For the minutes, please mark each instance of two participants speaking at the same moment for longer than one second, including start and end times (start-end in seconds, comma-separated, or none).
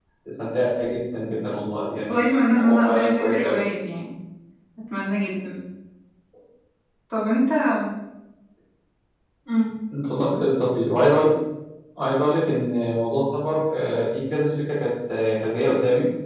2.1-3.6